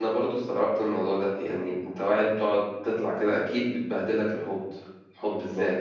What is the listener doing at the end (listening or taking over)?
taking over